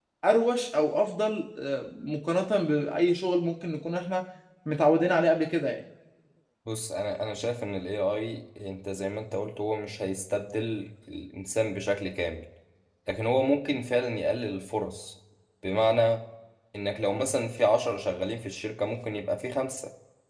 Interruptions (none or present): none